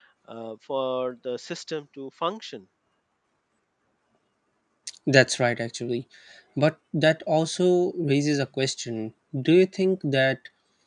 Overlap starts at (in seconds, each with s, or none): none